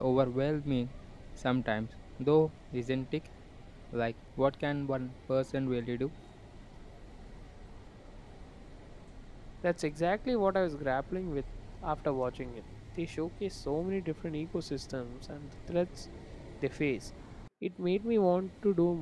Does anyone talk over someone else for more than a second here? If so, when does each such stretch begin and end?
none

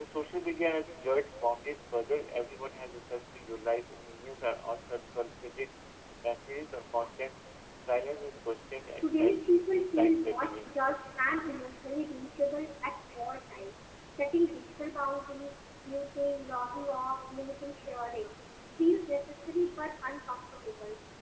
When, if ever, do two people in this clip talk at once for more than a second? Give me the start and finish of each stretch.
9.0-10.7

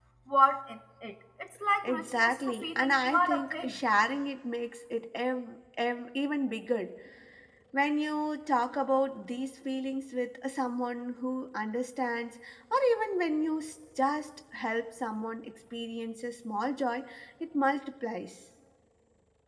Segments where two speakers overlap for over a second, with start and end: 1.8-3.7

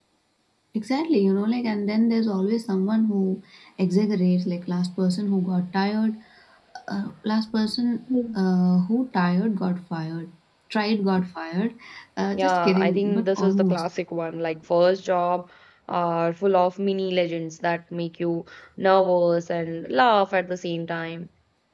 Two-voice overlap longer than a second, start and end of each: 12.3-13.8

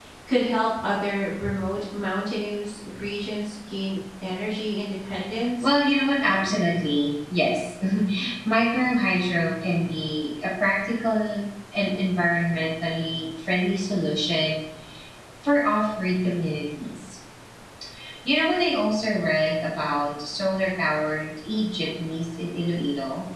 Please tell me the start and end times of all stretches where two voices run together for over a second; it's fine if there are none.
none

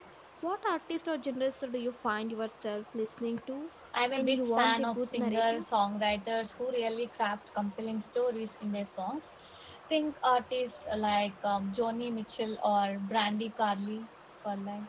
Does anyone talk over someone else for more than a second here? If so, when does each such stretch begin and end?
4.1-5.6

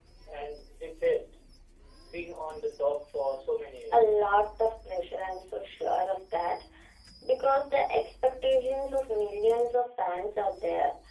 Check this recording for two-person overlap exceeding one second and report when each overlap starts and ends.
none

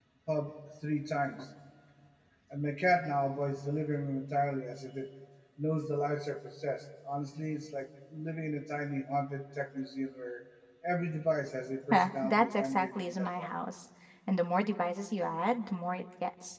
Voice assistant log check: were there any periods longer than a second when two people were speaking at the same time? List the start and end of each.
11.9-13.5

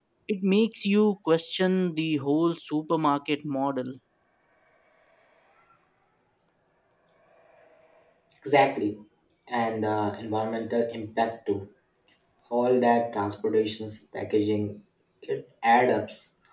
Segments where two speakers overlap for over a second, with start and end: none

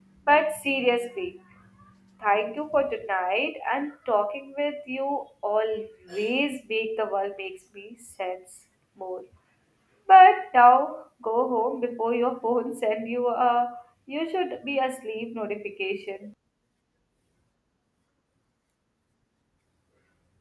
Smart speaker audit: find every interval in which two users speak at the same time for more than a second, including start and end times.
none

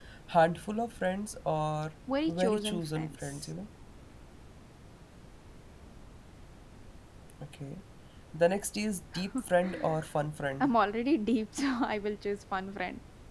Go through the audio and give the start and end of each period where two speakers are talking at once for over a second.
2.3-3.5

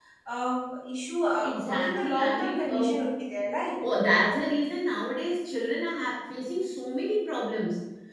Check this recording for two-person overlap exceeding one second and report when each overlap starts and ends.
1.4-2.9

